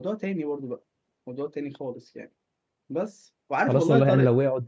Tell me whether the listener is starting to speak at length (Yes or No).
Yes